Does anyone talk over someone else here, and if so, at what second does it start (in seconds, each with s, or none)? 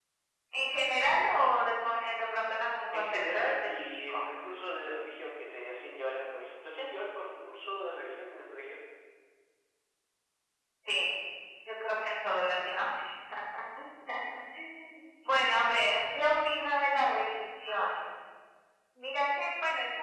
2.9 s